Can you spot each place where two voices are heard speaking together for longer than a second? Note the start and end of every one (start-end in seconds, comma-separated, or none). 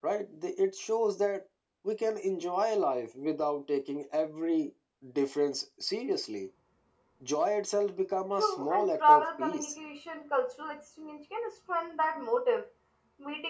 8.4-9.7